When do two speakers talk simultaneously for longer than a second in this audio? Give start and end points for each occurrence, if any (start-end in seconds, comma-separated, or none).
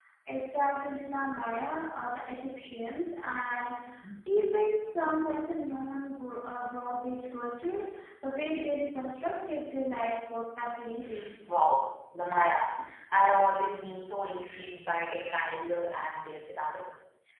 none